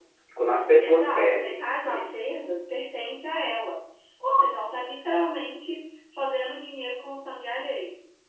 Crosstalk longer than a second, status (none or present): present